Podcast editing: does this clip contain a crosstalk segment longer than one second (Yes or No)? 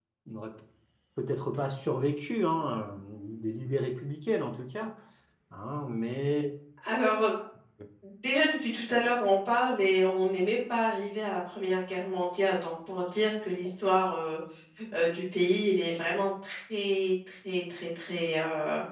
No